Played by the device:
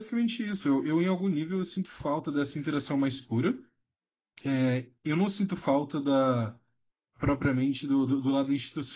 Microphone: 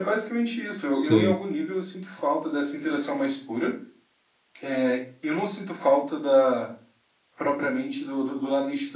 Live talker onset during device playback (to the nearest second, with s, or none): 1 s